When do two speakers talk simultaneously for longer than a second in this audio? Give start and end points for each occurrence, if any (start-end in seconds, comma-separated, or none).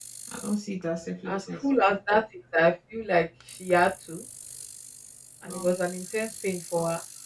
none